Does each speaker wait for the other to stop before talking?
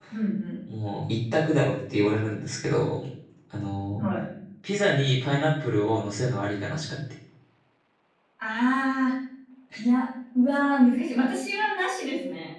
Yes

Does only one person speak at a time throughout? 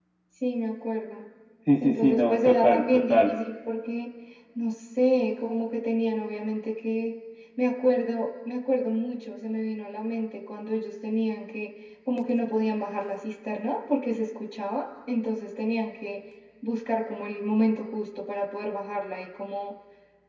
No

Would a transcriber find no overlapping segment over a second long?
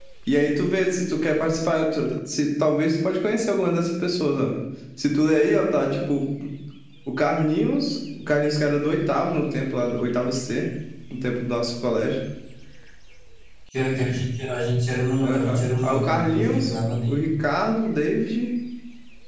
No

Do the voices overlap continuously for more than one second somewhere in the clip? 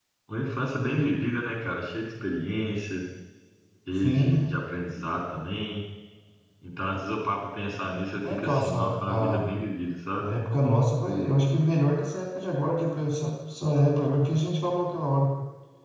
Yes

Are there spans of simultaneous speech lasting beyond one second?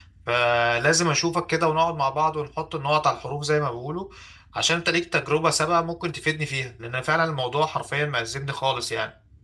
No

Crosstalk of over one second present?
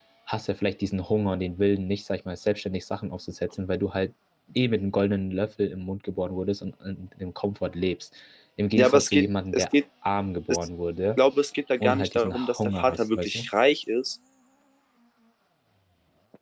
Yes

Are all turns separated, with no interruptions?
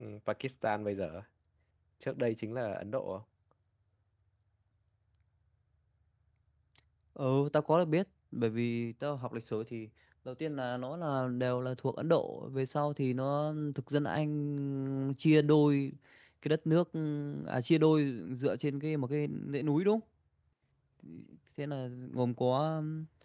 Yes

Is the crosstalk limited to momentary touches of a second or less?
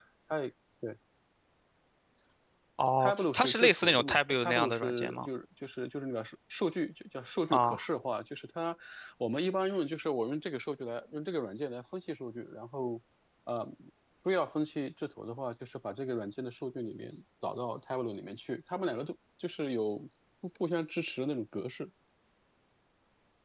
No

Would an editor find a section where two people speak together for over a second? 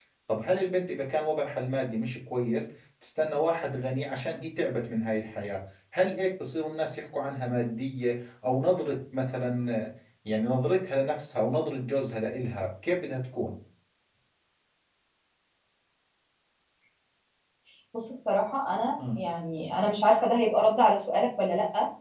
No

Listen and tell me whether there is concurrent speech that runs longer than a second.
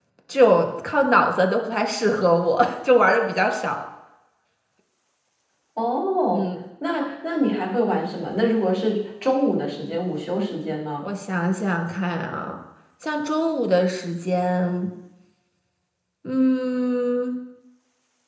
No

